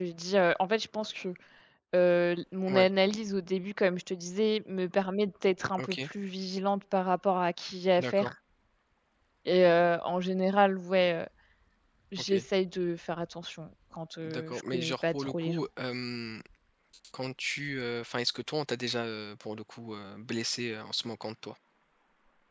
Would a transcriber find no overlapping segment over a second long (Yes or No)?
No